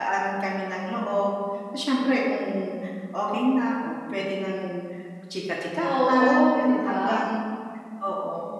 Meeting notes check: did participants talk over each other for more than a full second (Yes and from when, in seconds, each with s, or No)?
Yes, from 5.8 s